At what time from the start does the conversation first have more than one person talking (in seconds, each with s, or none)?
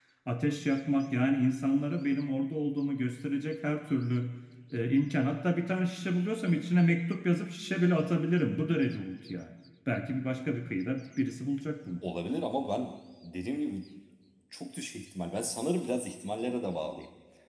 none